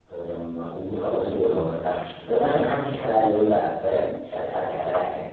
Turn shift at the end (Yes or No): Yes